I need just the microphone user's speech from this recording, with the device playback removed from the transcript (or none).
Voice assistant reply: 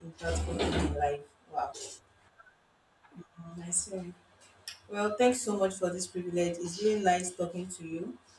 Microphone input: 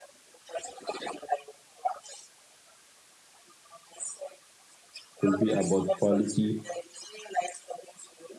could be about quality